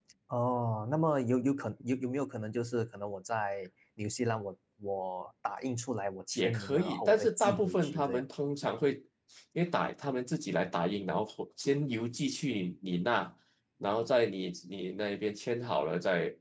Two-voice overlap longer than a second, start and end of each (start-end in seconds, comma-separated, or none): 6.3-8.2